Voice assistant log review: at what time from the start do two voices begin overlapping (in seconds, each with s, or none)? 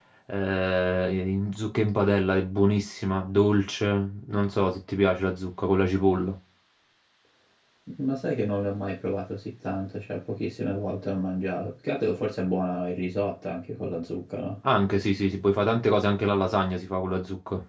none